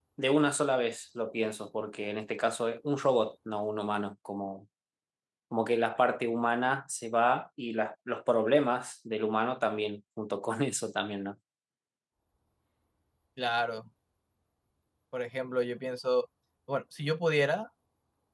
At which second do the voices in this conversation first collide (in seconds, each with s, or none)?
none